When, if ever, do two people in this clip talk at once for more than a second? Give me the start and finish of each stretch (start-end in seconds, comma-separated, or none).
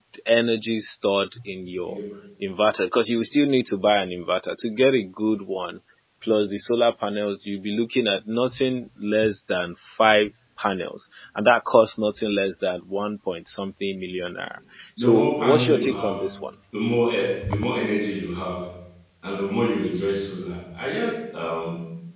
15.0-16.2